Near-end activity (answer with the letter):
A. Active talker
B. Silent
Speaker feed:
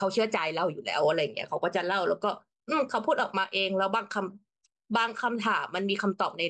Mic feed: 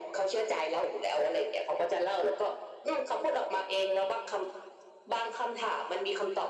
B